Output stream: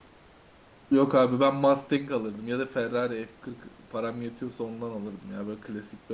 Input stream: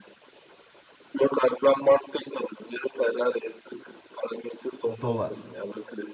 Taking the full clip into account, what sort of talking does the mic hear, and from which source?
both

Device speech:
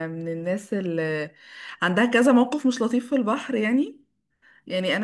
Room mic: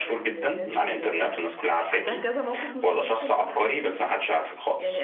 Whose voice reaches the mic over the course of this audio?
both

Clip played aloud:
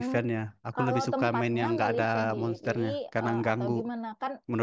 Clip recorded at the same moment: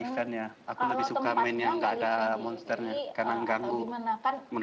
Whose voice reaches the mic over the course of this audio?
echo only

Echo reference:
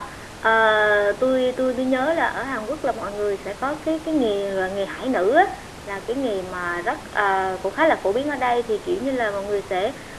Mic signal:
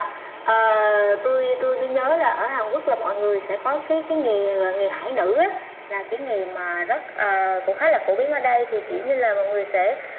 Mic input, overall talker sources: echo only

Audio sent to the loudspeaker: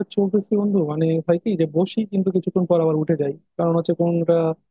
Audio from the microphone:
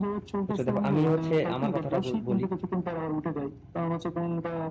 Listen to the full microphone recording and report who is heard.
both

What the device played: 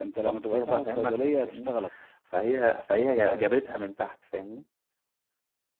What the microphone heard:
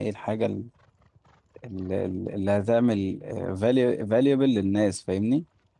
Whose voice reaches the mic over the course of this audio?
user only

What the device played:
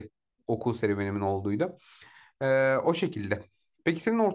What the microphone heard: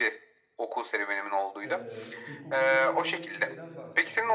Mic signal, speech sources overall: both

